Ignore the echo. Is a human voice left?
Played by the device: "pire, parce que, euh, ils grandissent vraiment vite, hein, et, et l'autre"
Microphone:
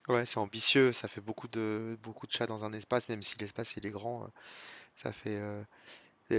Yes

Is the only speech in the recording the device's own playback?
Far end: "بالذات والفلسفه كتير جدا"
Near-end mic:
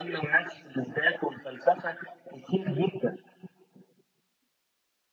Yes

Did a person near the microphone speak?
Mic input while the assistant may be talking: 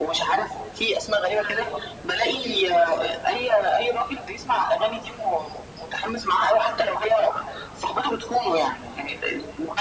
No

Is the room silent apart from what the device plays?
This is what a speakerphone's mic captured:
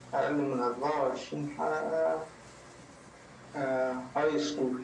Yes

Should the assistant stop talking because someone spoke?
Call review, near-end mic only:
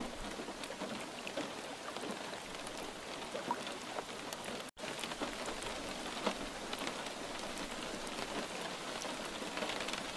No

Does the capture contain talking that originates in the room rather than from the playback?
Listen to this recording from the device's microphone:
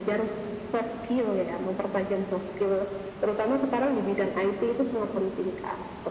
No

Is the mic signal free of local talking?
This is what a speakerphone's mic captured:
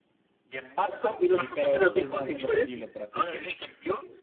No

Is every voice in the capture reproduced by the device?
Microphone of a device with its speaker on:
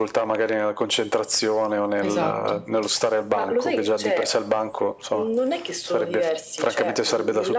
No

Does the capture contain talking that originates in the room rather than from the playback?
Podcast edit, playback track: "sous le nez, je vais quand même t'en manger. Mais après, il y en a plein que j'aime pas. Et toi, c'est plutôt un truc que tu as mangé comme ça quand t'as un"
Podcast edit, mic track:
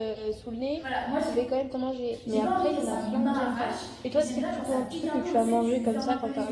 Yes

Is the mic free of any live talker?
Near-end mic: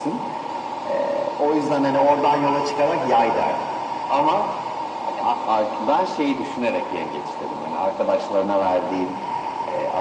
Yes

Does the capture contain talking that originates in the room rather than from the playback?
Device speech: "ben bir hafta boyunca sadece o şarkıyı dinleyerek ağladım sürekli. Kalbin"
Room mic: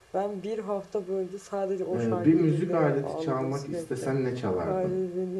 Yes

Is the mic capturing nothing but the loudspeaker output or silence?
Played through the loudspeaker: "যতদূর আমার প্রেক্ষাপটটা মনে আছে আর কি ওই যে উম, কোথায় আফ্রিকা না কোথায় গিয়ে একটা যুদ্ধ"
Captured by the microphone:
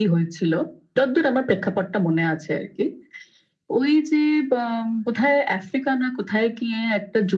Yes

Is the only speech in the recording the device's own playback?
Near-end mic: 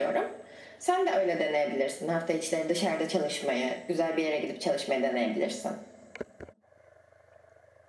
Yes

